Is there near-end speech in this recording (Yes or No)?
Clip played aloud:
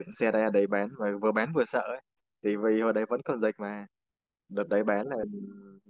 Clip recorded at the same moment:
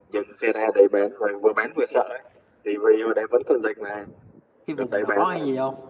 Yes